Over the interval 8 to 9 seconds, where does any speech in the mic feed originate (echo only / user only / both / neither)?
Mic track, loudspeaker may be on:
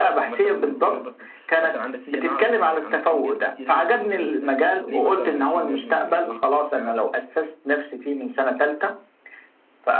echo only